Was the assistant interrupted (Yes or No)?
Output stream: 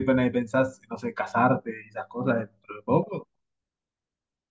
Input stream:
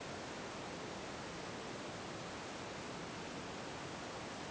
No